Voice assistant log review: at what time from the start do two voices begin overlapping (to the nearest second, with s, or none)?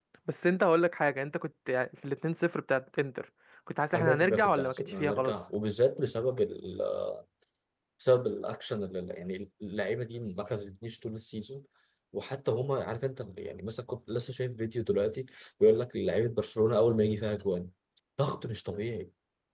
4 s